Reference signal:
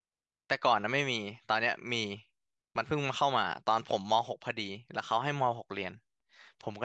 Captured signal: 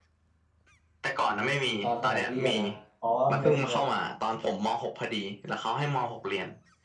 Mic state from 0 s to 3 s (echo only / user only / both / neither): both